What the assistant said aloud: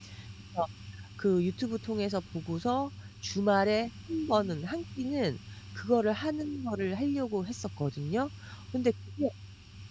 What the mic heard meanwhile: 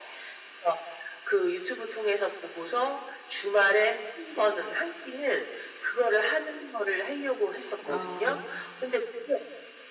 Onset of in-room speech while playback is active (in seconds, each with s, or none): 7.8 s